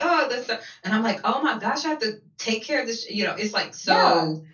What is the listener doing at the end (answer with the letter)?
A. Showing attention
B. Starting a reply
B